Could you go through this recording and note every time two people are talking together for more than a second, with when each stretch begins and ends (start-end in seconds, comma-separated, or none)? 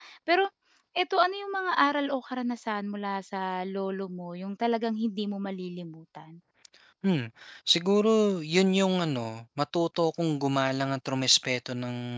none